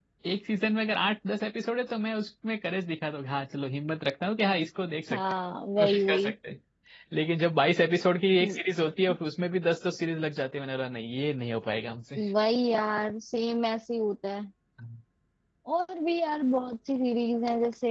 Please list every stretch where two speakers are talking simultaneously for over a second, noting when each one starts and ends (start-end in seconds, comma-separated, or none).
none